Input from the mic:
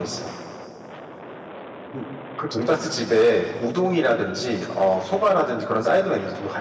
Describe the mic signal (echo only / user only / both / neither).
echo only